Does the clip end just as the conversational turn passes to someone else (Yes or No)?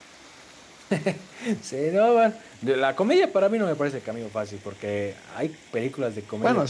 No